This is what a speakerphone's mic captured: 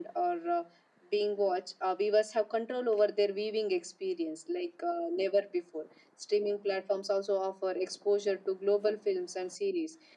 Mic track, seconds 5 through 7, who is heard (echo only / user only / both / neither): echo only